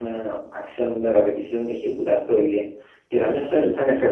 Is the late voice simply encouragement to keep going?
Yes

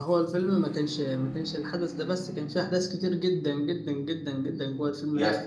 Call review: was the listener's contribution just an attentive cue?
Yes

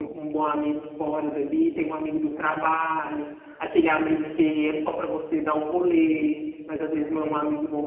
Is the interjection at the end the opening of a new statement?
No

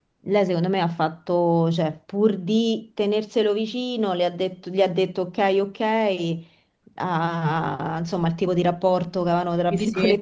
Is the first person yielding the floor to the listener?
Yes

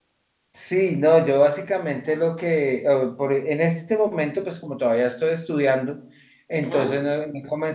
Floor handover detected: No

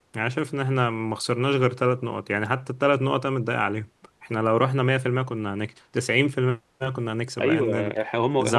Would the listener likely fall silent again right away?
No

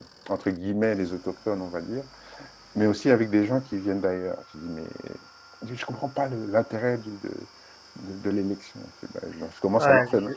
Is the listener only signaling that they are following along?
No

